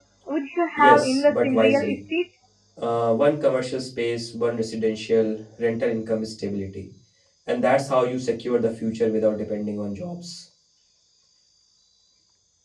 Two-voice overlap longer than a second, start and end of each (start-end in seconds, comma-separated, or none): 0.8-2.0